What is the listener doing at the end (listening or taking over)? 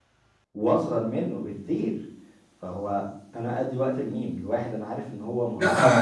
taking over